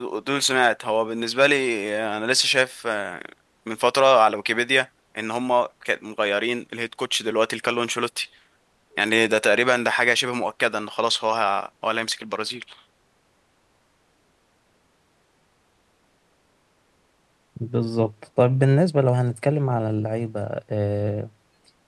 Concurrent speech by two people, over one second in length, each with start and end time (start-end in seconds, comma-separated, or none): none